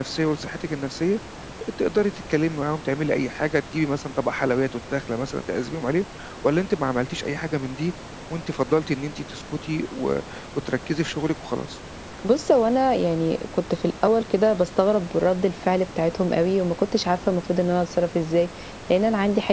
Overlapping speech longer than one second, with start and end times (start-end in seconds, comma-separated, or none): none